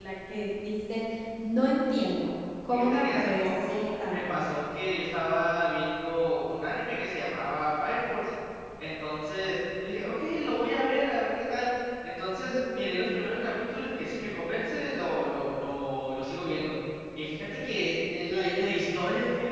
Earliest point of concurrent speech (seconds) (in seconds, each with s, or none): 2.7 s